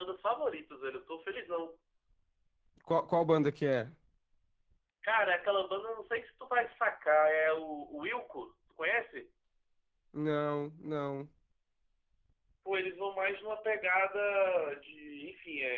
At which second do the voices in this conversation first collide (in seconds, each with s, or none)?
none